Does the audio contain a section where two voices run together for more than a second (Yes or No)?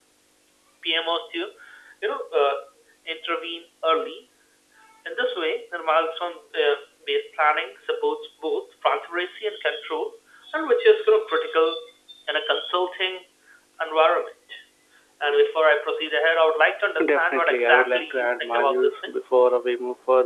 Yes